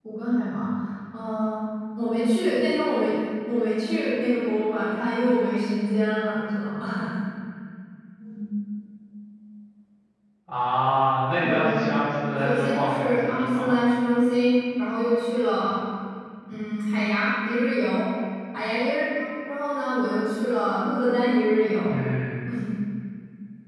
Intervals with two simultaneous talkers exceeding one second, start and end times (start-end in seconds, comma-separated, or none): 12.4-13.7